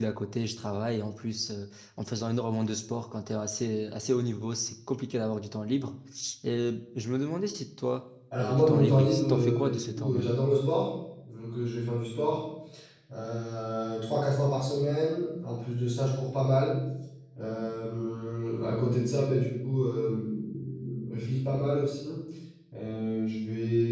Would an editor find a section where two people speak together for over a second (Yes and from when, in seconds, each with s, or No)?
Yes, from 8.3 s